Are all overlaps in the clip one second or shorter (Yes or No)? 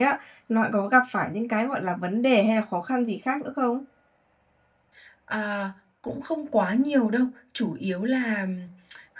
Yes